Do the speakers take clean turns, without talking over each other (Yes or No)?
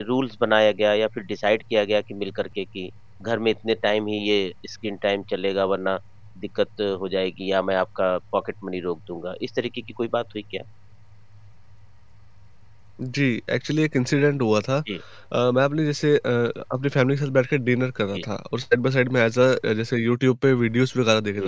Yes